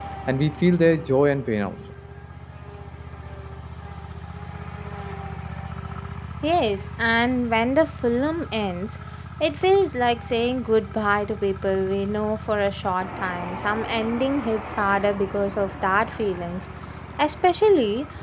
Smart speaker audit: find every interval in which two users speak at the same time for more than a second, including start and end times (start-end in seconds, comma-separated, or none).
none